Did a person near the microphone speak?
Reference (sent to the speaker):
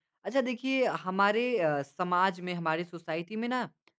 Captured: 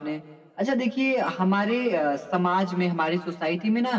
No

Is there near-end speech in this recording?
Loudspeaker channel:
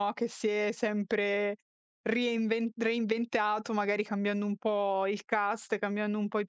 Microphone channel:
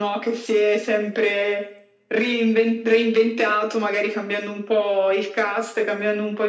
No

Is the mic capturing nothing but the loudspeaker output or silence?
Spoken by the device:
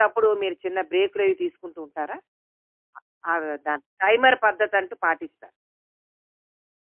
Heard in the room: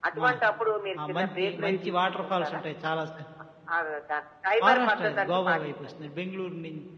No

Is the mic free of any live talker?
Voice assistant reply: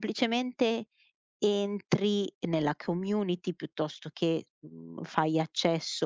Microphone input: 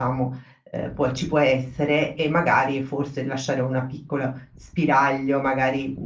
No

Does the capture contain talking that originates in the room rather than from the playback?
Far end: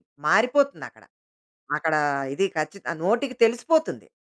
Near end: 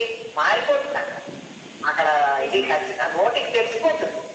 Yes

